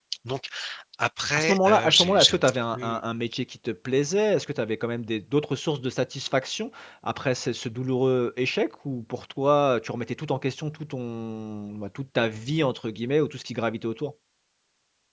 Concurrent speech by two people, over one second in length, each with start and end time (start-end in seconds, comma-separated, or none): 1.4-3.0